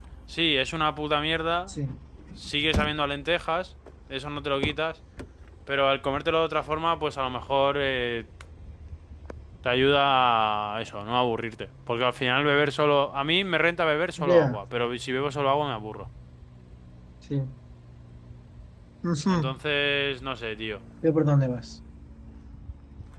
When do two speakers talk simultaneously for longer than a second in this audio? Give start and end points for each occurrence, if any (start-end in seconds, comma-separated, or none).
none